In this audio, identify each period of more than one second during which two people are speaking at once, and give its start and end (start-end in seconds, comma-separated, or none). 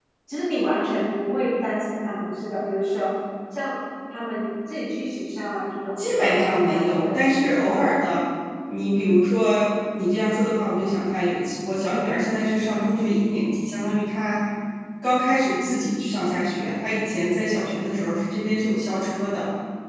6.0-7.8